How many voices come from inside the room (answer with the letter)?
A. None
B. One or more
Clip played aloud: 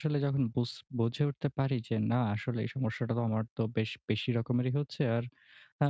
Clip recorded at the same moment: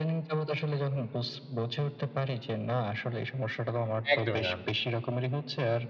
B